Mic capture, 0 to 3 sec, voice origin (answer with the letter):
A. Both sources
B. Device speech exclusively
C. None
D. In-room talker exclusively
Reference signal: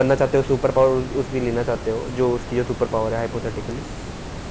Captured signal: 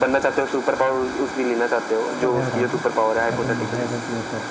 A